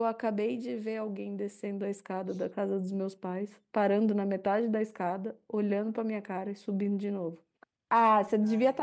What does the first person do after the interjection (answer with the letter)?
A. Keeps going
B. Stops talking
A